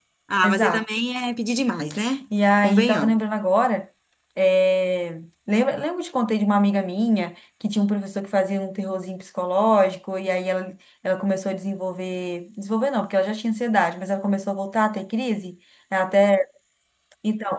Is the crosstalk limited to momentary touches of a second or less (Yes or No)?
Yes